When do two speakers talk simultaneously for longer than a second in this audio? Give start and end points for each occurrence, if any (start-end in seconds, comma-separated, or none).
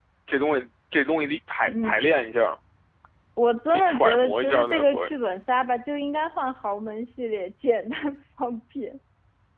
3.7-5.1